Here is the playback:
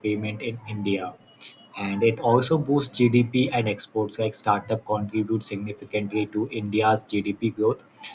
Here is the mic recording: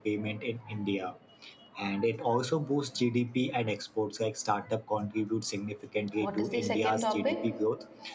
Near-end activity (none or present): present